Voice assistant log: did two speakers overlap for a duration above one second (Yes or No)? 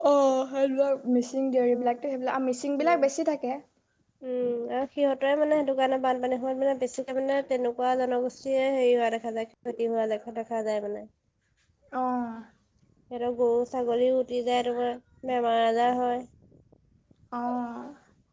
No